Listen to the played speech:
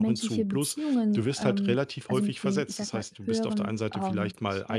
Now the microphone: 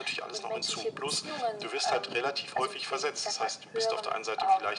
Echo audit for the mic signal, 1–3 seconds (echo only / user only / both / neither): echo only